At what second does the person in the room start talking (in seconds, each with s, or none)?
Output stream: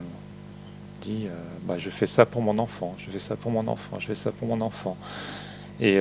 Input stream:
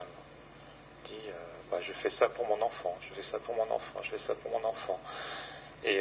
none